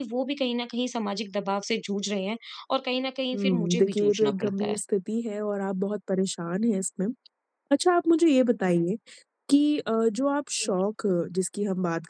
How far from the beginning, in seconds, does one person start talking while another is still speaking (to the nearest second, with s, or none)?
3 s